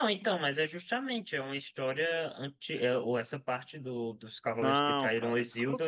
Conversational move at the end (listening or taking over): taking over